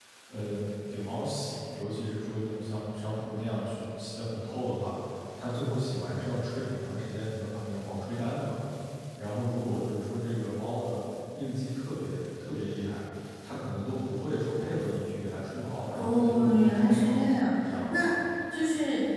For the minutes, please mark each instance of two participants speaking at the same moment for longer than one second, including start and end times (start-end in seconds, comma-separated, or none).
15.9-17.2